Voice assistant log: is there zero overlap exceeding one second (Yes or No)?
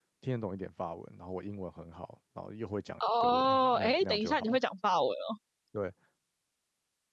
No